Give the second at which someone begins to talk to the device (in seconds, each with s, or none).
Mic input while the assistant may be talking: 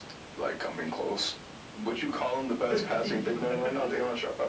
2.5 s